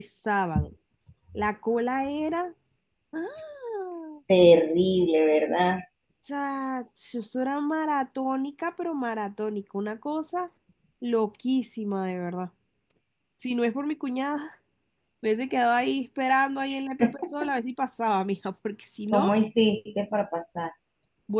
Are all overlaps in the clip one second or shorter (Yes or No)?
Yes